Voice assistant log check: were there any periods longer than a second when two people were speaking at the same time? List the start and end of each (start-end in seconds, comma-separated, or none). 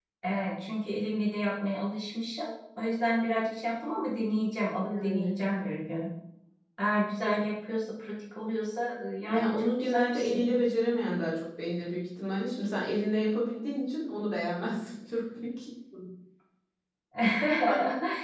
9.3-10.5